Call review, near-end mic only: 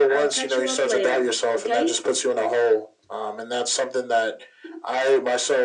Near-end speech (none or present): none